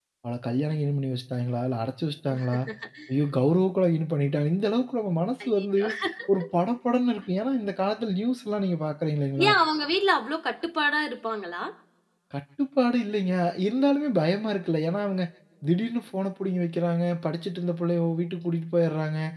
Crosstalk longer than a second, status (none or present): none